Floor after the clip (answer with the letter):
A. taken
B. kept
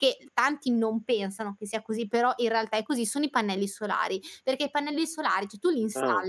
B